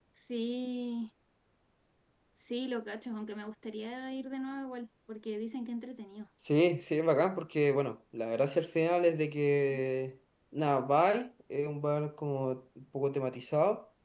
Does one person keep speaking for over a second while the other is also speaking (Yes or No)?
No